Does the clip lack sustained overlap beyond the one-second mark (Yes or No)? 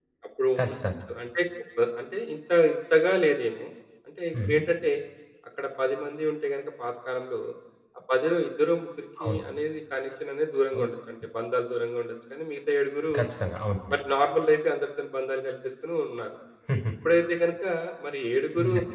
Yes